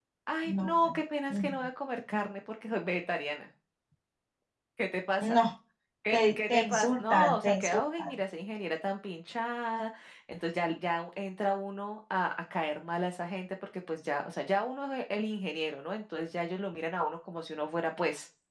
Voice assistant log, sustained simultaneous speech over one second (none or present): present